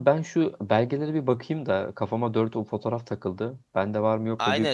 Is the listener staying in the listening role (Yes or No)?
No